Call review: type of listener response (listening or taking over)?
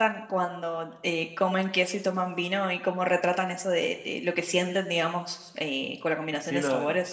taking over